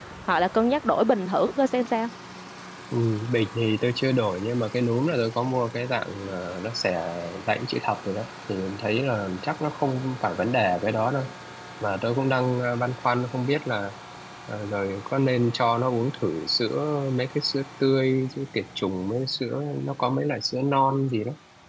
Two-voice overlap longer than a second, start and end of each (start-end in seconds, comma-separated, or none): none